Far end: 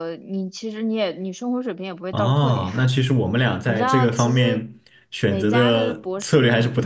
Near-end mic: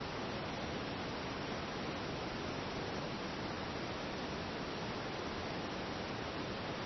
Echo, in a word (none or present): none